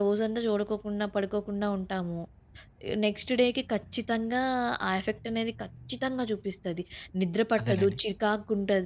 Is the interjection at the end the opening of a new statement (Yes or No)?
No